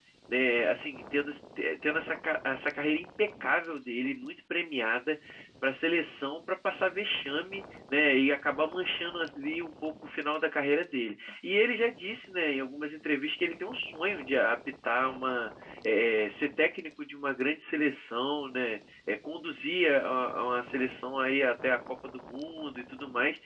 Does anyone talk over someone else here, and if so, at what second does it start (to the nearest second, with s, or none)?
none